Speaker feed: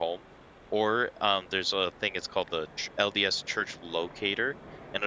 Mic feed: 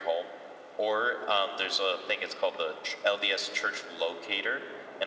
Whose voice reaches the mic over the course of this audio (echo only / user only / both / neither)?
echo only